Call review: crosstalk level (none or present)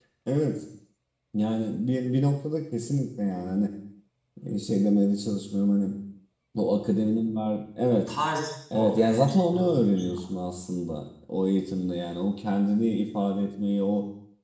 present